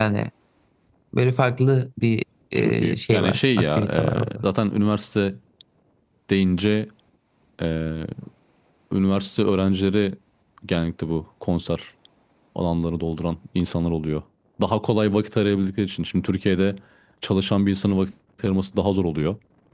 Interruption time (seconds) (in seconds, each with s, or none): 2.6 s